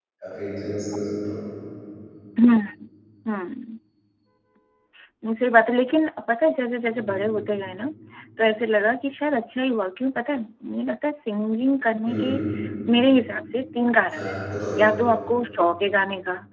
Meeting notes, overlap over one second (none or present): none